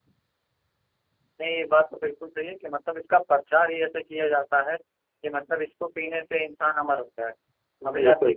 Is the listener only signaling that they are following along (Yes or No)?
Yes